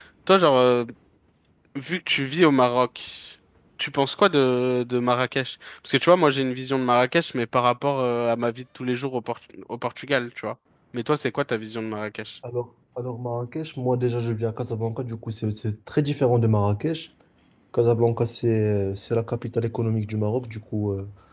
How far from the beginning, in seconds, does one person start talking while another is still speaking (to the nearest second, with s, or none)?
none